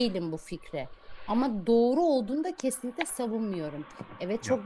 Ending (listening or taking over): listening